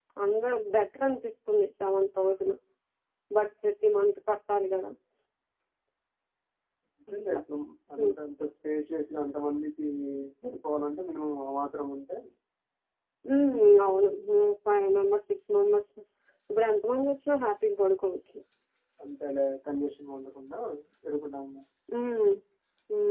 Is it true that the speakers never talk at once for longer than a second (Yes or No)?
Yes